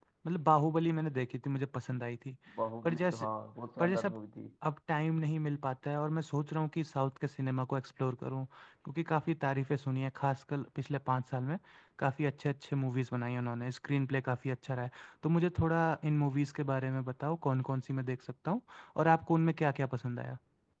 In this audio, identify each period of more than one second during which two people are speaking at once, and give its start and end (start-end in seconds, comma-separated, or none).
none